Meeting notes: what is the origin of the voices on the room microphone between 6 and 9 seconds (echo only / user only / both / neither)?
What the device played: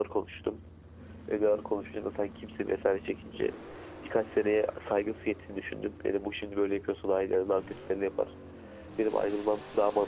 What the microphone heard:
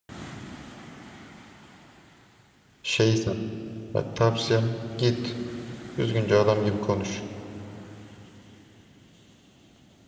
user only